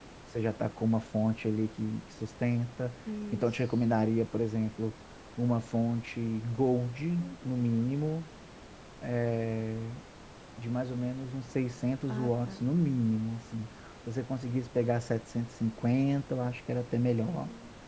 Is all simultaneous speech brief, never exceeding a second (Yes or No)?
Yes